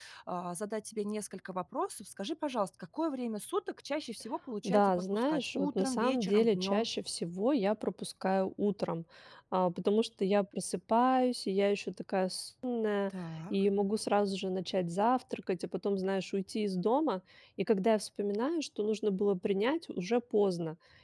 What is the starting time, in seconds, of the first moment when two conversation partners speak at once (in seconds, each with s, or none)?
4.6 s